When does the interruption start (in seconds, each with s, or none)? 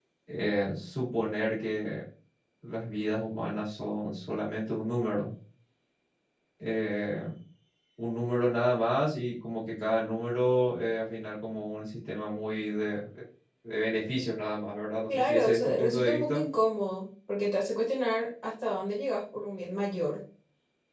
15.1 s